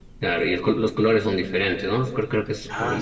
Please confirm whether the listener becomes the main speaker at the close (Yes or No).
Yes